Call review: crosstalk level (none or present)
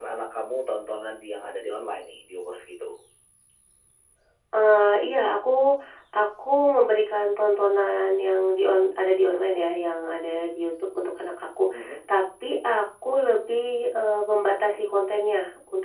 none